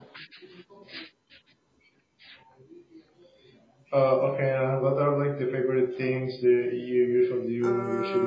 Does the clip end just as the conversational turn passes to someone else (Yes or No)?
Yes